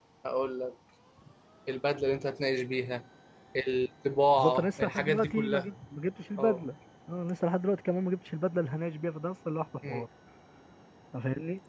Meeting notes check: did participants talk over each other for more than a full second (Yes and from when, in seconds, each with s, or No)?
Yes, from 4.3 s